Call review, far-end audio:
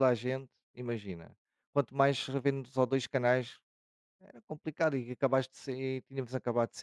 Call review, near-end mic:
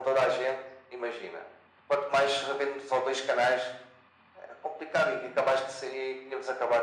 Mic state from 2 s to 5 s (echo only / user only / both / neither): echo only